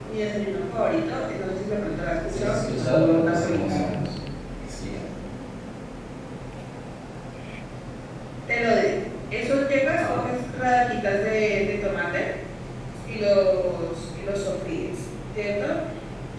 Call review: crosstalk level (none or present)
present